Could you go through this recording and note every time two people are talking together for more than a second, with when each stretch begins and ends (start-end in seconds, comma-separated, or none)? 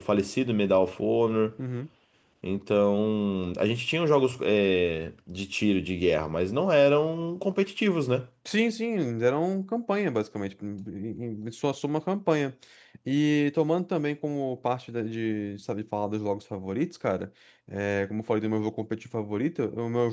none